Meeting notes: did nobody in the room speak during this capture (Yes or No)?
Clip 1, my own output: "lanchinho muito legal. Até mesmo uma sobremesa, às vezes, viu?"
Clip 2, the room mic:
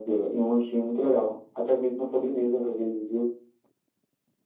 Yes